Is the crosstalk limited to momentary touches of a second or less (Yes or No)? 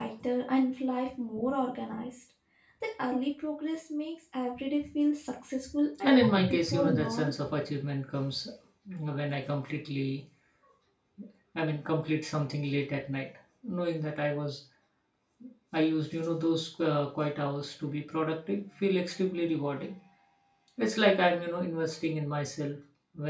No